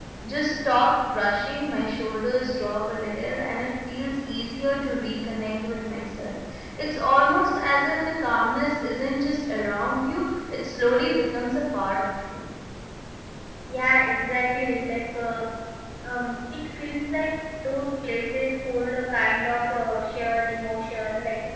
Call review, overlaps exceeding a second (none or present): none